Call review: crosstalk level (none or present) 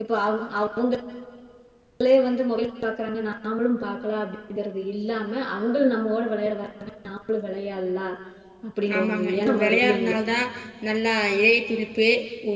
present